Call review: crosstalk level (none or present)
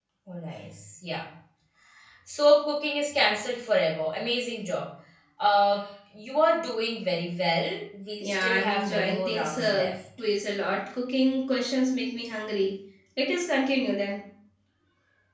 present